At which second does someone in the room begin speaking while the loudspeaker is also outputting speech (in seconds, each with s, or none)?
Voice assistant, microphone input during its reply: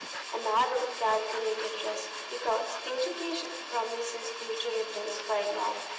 none